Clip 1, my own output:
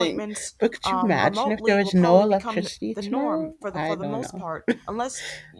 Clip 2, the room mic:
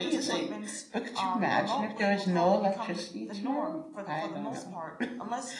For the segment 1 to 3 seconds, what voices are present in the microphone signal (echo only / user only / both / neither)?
echo only